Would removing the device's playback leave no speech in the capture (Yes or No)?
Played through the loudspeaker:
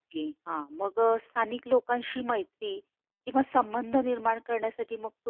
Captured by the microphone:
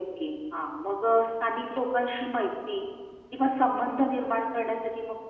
Yes